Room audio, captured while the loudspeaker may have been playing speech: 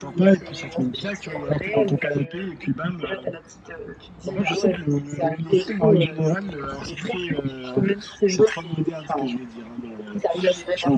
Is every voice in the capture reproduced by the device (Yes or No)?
Yes